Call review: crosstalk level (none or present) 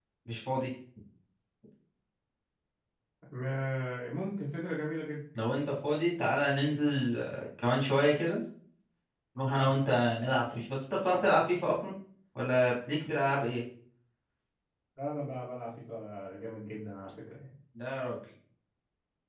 none